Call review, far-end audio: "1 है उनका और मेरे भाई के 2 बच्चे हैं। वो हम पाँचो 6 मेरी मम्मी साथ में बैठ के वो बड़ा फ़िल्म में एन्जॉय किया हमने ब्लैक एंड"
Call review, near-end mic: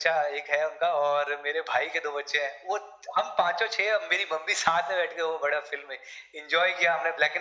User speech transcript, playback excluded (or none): none